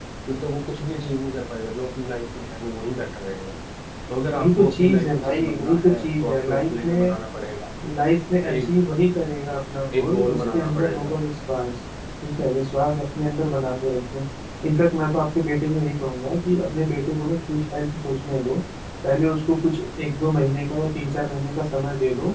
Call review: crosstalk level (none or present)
present